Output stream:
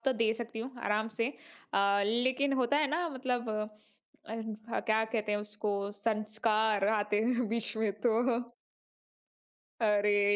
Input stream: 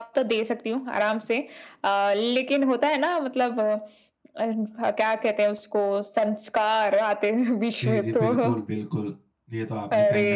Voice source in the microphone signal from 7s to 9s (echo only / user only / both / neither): both